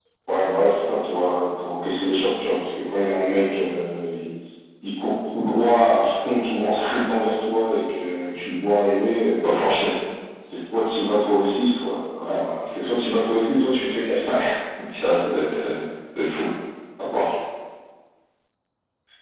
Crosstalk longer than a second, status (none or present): none